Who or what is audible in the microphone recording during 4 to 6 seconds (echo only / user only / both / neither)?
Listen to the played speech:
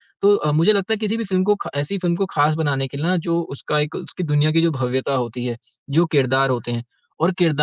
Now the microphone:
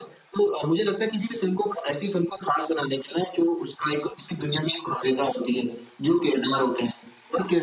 echo only